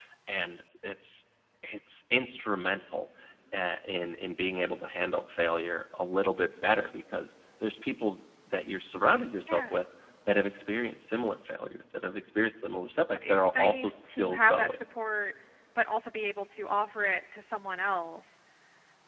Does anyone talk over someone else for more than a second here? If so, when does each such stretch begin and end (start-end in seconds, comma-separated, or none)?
13.2-14.8